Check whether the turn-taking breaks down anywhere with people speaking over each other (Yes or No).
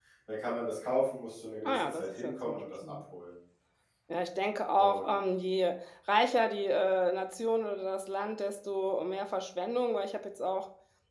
Yes